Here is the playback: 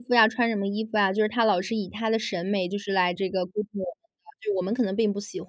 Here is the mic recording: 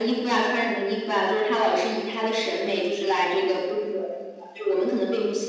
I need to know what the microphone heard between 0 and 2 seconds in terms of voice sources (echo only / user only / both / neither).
echo only